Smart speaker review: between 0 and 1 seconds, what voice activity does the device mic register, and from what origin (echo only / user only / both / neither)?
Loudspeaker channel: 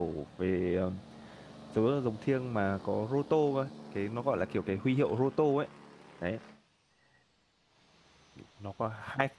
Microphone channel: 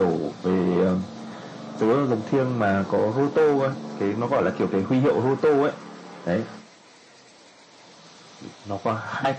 echo only